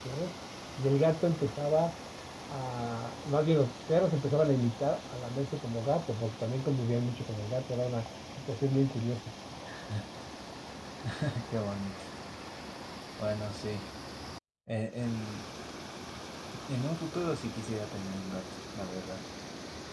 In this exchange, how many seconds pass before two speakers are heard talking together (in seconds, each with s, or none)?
none